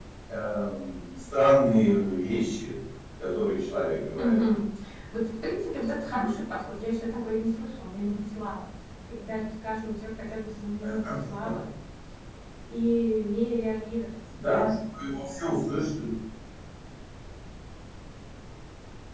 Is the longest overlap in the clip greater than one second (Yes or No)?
No